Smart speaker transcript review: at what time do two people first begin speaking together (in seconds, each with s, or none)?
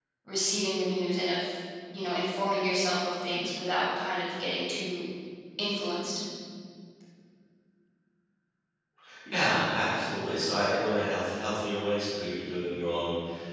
none